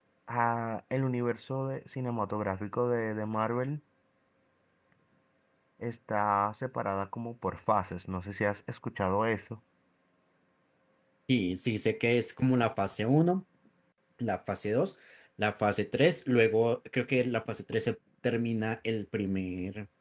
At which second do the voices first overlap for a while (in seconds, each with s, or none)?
none